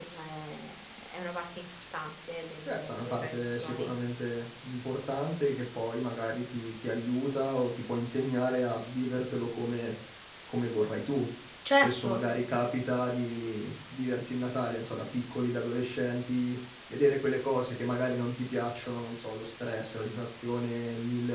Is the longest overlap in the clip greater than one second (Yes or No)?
Yes